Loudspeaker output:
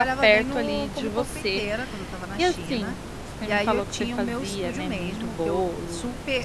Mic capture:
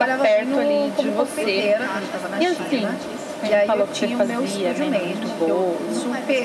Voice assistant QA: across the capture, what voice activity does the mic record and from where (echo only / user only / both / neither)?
both